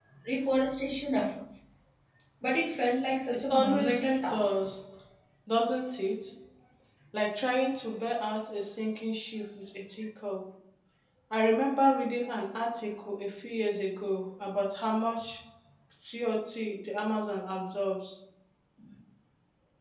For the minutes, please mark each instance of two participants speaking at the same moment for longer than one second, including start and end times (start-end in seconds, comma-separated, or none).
3.3-4.6